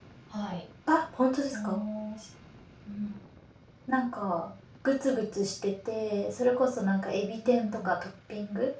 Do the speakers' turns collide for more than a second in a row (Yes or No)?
No